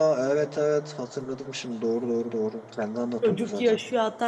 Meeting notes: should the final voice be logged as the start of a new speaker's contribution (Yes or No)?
Yes